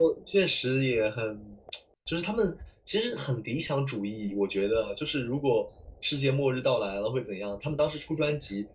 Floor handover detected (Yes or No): No